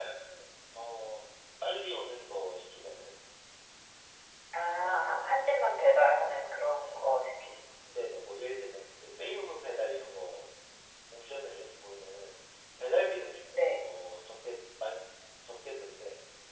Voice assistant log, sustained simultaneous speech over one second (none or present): none